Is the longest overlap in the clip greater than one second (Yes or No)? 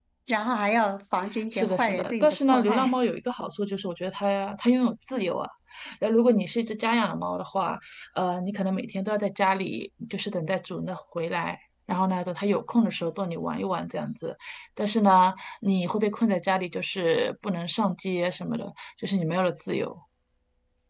Yes